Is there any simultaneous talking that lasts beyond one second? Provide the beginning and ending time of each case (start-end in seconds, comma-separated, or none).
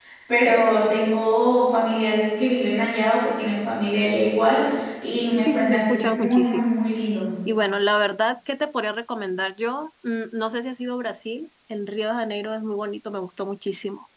5.5-6.8